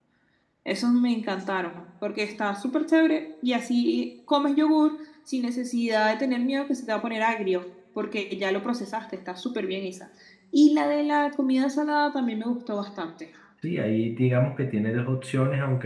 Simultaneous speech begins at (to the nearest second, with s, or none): none